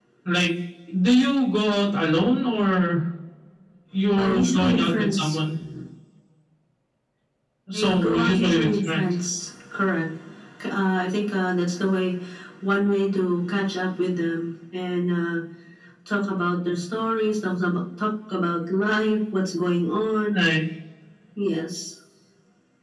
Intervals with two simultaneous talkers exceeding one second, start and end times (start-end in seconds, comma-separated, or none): 4.2-5.4, 7.7-9.1